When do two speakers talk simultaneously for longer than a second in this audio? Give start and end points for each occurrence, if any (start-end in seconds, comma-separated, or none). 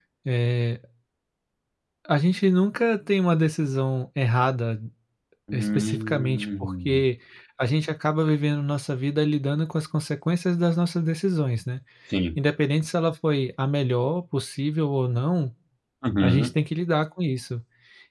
5.5-7.0